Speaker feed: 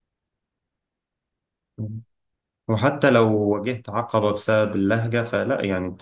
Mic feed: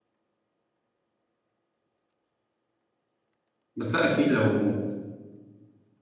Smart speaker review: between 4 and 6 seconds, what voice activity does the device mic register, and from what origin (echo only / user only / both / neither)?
user only